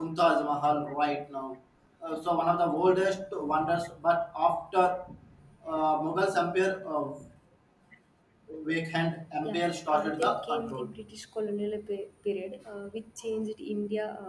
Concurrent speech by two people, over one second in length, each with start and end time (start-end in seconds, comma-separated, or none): 9.4-10.9